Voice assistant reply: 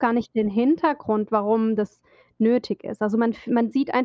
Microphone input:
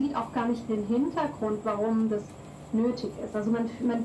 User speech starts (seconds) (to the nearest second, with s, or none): none